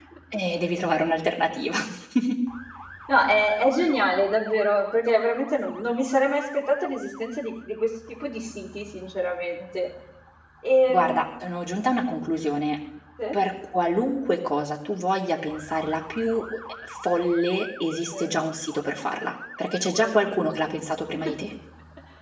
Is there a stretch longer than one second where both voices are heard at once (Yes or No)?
No